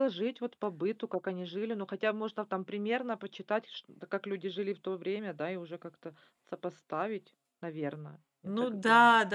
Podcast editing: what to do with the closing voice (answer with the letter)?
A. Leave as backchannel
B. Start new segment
B